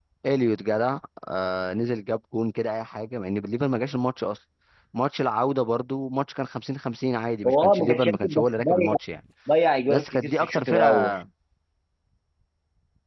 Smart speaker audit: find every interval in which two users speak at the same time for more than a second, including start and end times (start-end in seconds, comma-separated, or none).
7.4-9.0, 9.9-11.2